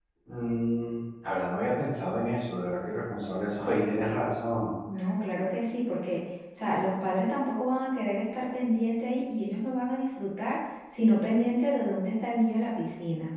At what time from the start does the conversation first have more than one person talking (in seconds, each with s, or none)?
none